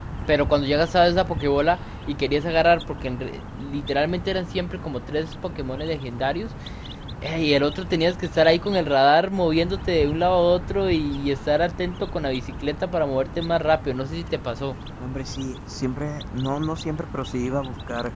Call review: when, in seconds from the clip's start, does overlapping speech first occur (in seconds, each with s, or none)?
none